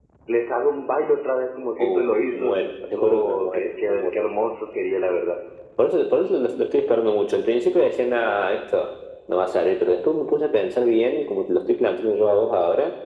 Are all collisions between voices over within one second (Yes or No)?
No